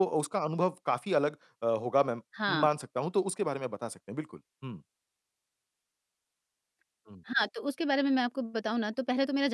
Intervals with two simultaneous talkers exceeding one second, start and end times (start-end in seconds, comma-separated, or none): none